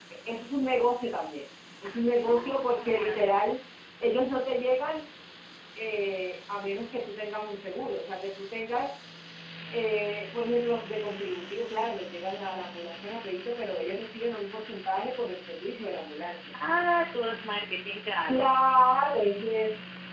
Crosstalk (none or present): present